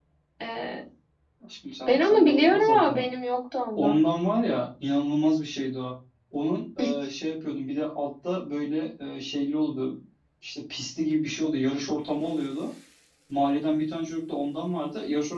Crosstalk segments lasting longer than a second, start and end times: 1.9-3.1

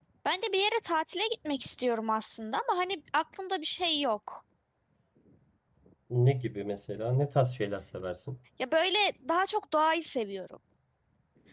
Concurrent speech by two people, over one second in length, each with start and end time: none

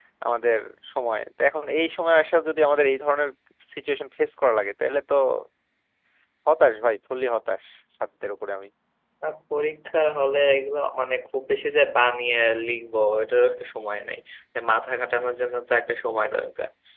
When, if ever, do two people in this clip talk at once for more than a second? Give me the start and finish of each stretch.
none

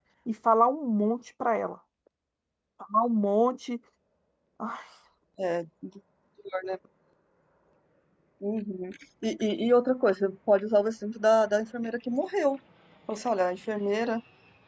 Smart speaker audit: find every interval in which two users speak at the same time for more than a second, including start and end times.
none

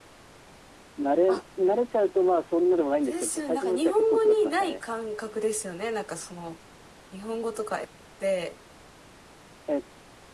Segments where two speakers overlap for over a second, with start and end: 3.0-4.8

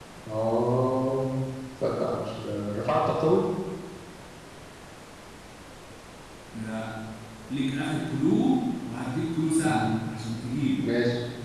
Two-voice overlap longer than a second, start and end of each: none

